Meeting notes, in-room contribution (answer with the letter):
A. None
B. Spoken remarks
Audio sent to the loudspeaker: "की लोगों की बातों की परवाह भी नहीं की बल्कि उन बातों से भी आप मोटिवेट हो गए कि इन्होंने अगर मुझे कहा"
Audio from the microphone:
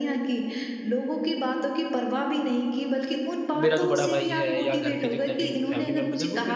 B